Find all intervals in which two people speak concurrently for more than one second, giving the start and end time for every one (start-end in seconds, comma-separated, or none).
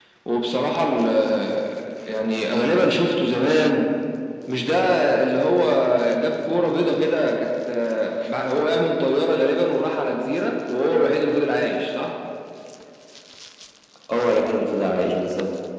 none